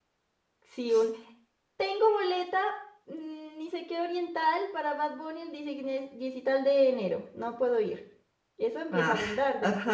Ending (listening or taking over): taking over